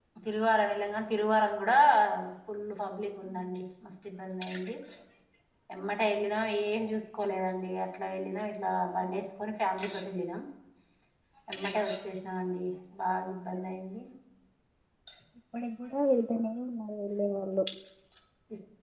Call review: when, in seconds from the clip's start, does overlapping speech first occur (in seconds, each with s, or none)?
none